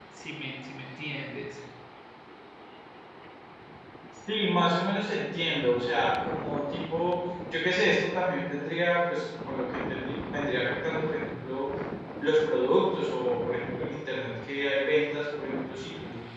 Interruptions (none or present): none